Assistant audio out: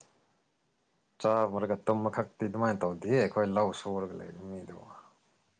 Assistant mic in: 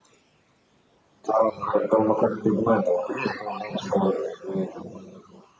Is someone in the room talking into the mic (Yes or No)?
No